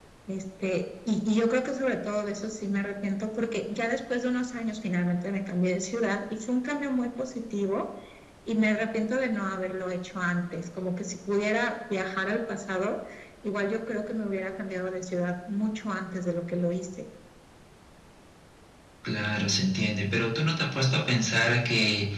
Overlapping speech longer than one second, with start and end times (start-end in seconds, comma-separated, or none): none